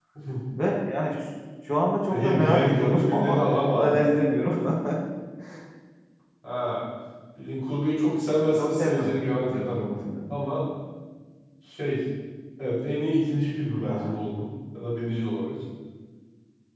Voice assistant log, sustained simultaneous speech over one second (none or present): present